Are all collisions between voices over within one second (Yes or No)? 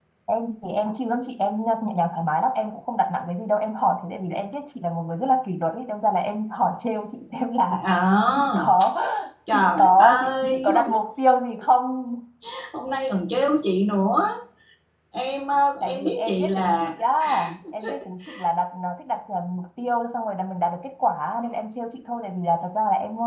No